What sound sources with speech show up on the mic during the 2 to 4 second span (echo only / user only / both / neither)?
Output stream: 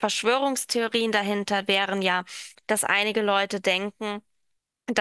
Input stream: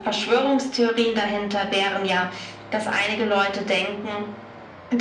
echo only